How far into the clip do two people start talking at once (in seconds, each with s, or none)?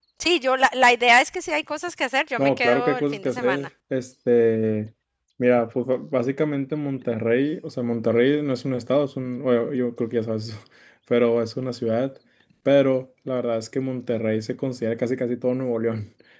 2.4 s